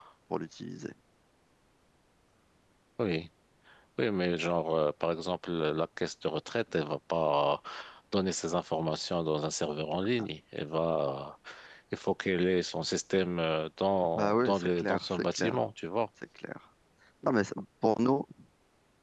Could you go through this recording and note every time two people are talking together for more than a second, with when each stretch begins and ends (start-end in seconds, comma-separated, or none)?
14.2-15.6